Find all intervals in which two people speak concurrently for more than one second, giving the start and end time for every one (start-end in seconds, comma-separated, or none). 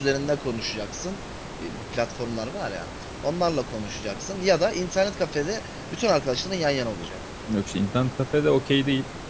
none